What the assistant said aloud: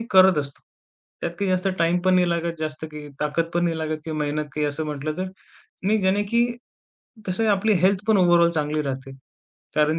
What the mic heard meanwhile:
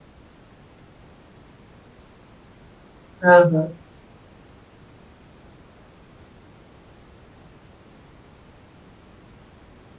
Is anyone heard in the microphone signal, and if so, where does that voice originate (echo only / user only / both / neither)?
user only